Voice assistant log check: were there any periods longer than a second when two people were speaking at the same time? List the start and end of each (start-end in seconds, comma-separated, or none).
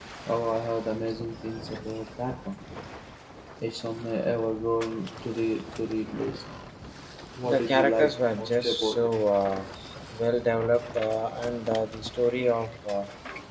7.4-9.1